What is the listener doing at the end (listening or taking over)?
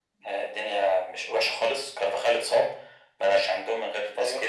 listening